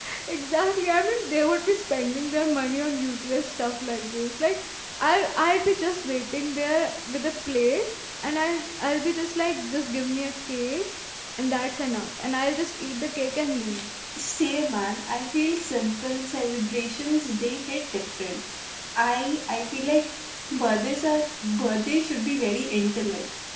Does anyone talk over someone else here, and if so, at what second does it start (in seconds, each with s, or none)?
none